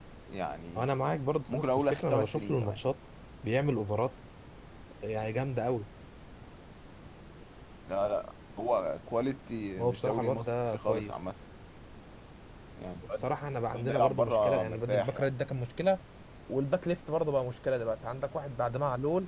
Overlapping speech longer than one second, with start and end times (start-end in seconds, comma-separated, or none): 1.5-2.8, 9.8-11.2, 13.7-15.3